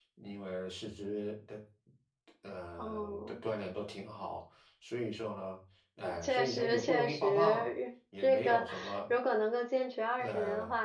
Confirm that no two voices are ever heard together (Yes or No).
No